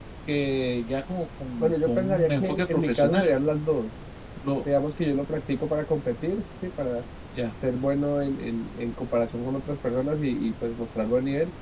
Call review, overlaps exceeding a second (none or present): present